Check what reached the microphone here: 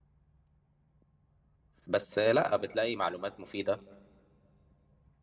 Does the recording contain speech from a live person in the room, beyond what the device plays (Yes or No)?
Yes